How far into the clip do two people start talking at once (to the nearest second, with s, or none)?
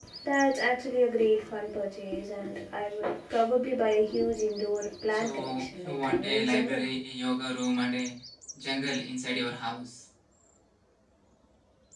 5 s